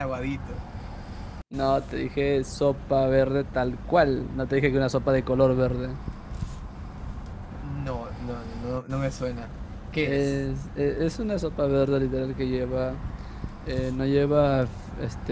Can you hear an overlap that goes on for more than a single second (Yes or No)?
No